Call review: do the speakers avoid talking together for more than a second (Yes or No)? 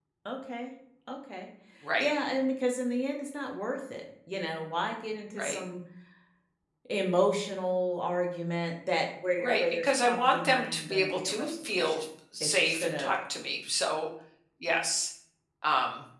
No